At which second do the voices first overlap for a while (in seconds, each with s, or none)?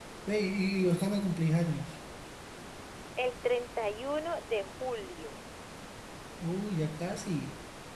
none